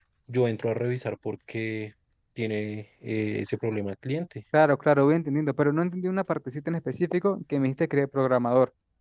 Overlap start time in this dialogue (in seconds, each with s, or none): none